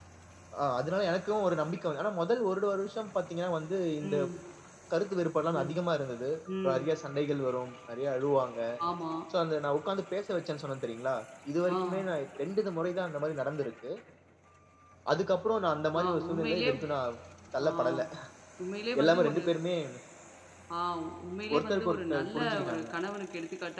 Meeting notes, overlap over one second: present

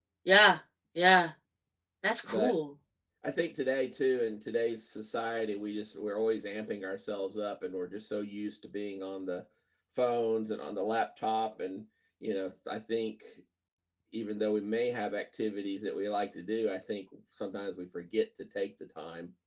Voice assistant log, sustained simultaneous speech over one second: none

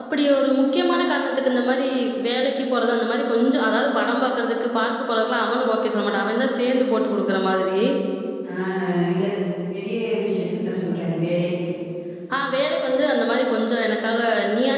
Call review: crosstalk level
none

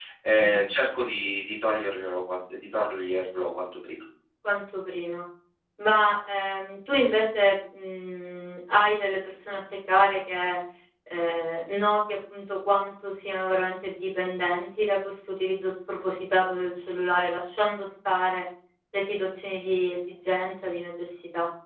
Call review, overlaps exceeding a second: none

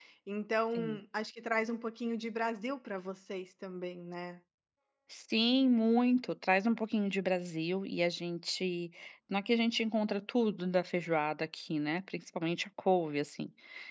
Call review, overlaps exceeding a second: none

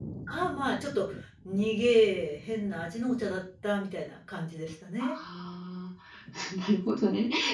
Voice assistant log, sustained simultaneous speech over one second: none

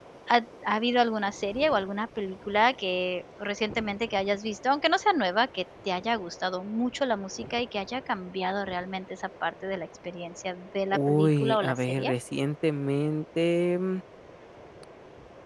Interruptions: present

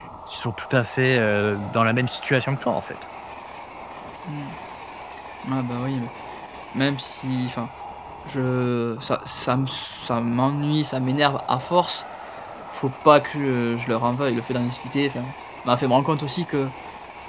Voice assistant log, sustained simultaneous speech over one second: none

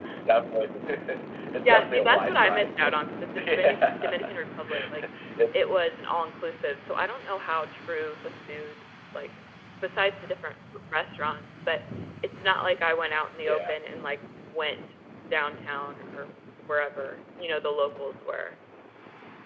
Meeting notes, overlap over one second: present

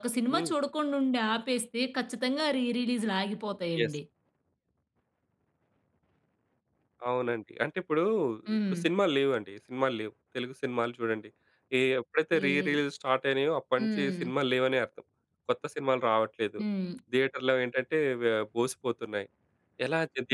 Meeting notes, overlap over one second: none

